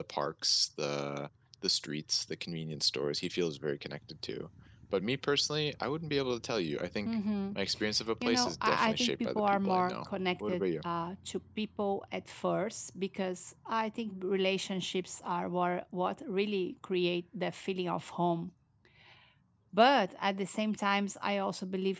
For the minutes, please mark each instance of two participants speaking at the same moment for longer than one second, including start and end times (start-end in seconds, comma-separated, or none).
8.2-9.9